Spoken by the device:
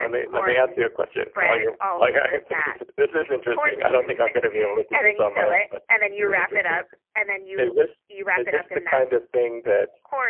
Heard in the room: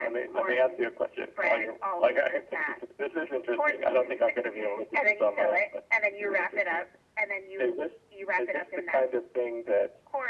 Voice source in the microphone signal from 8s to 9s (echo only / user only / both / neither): echo only